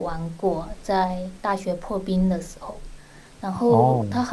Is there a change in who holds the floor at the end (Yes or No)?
No